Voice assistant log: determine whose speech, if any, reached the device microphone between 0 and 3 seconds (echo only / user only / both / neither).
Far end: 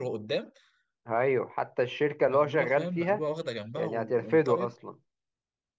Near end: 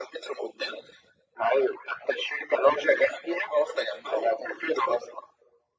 echo only